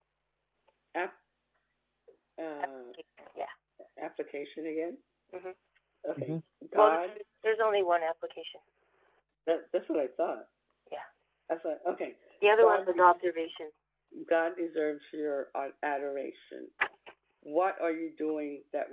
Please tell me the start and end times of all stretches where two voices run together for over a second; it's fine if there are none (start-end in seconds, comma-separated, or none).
none